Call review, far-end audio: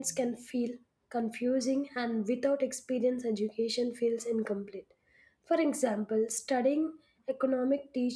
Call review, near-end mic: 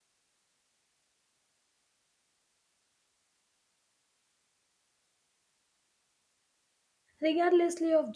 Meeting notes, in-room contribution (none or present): present